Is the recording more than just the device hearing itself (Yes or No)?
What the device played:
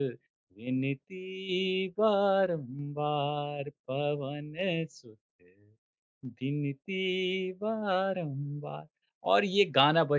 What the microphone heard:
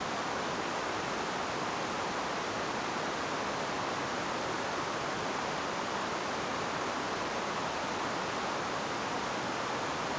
No